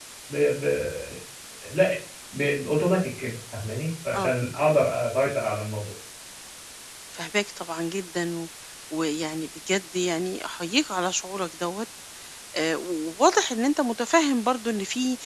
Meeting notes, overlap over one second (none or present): none